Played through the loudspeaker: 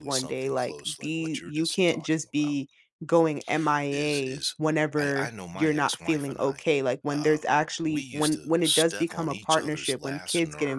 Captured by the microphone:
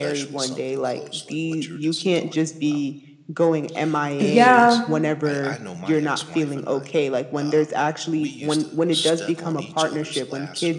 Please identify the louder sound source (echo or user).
user